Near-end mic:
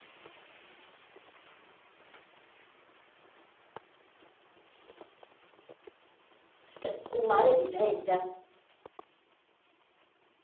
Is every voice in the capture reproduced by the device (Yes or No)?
No